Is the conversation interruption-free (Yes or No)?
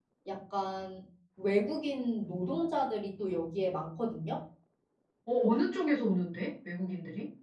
Yes